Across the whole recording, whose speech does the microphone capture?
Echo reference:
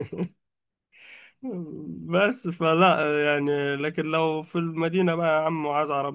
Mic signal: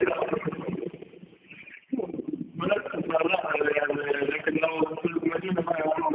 echo only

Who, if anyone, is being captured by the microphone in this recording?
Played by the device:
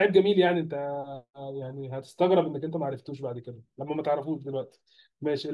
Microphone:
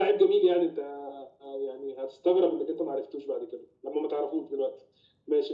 echo only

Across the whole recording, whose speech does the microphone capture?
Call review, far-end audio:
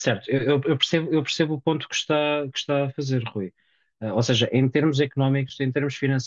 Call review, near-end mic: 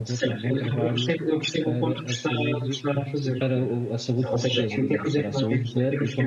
both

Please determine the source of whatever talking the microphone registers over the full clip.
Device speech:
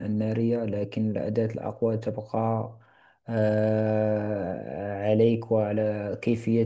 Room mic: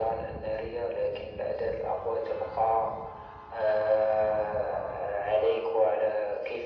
echo only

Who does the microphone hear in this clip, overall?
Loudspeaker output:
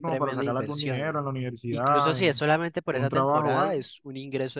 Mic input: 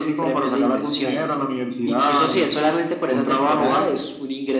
echo only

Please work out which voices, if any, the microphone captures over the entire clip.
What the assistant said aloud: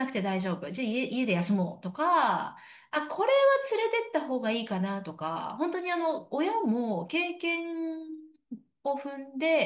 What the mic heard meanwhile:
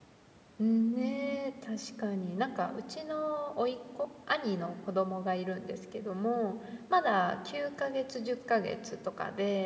user only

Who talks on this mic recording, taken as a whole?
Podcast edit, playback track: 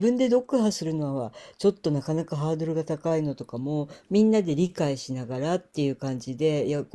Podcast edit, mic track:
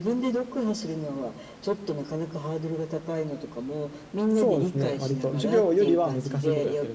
both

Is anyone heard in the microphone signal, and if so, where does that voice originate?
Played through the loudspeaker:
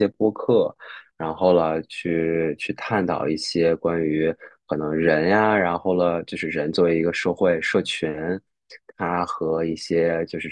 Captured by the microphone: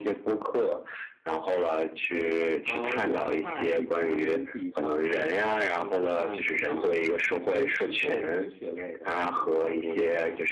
both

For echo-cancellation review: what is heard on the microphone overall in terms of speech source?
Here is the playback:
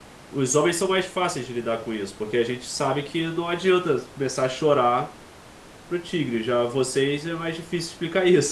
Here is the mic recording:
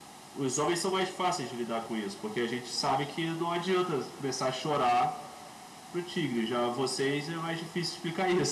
echo only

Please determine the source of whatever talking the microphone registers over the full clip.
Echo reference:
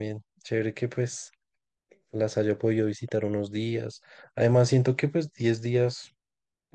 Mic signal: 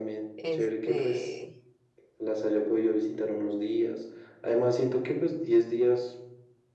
both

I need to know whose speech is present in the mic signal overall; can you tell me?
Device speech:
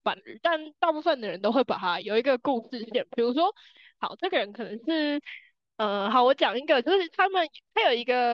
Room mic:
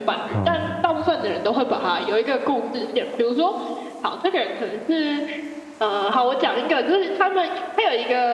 both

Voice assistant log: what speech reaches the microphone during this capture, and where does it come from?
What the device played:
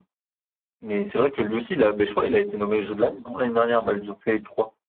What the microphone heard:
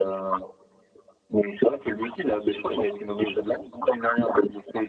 echo only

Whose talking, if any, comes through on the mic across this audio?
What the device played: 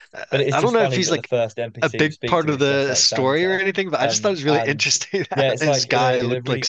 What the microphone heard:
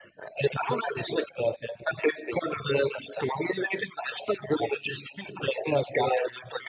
echo only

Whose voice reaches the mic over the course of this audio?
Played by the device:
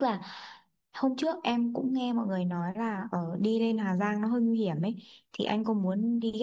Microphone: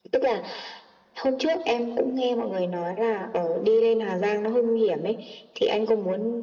echo only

